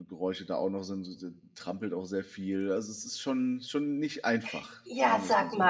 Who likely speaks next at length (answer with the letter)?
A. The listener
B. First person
A